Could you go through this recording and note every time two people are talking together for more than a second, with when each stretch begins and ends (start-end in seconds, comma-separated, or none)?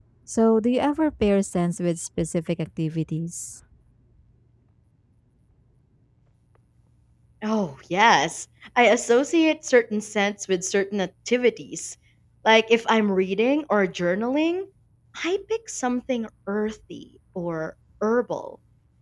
none